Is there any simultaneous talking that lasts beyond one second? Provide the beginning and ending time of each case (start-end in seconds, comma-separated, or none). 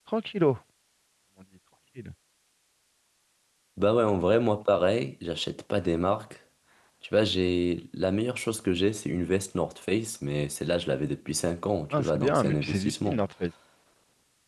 11.9-13.2